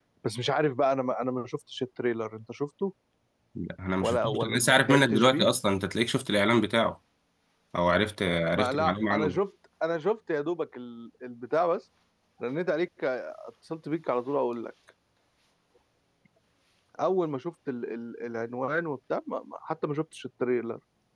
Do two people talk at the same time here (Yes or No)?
Yes